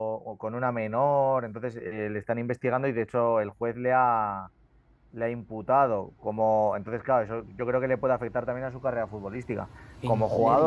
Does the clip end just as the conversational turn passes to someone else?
No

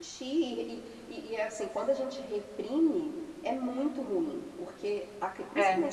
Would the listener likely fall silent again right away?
Yes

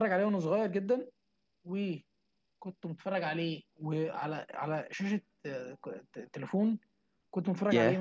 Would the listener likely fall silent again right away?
Yes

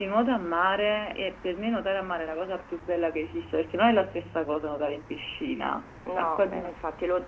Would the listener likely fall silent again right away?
No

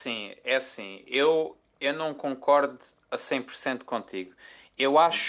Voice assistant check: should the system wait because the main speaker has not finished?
Yes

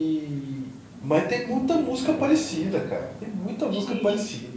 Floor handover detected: Yes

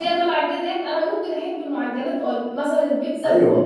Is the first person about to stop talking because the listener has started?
No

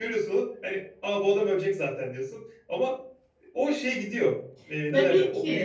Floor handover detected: Yes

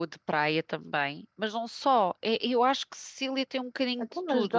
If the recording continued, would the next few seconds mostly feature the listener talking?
Yes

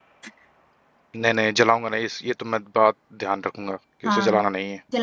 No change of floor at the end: No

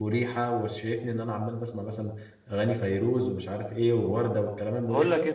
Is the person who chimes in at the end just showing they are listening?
No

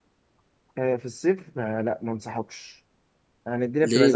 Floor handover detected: No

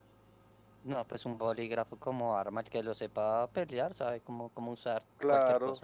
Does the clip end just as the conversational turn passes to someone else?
Yes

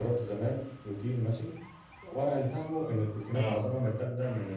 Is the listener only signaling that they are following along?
Yes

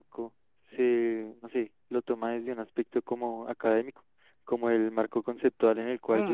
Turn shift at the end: Yes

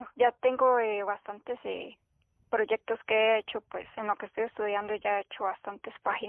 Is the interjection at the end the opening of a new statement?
No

